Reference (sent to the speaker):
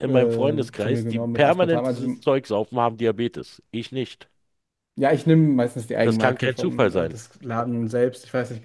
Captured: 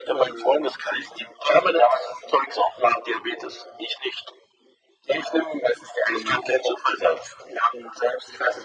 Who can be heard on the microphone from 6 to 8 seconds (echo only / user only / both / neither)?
echo only